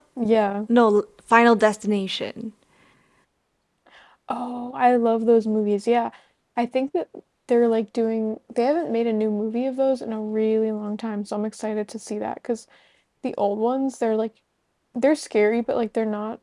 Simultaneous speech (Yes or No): No